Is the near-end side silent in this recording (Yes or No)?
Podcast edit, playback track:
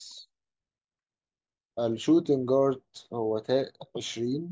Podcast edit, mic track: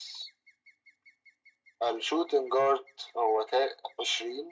Yes